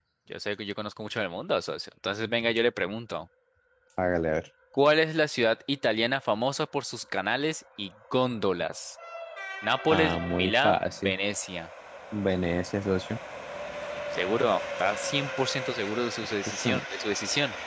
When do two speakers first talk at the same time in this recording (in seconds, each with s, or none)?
9.9 s